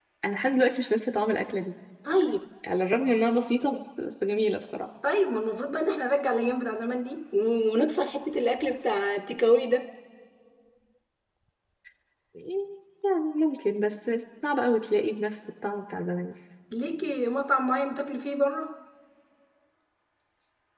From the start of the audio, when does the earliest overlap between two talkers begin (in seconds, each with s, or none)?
none